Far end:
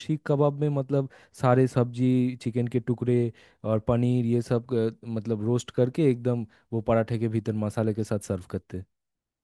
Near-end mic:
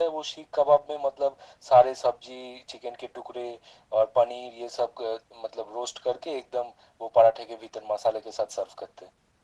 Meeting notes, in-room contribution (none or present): none